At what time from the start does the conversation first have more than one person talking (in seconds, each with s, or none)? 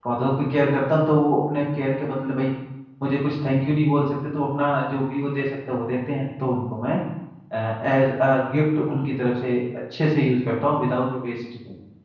none